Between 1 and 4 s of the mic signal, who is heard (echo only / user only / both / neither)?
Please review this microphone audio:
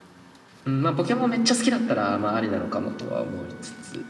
echo only